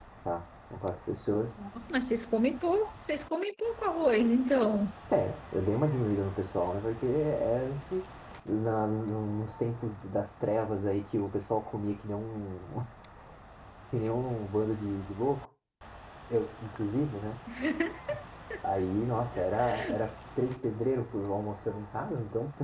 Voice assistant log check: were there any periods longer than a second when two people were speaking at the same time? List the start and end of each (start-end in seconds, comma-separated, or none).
none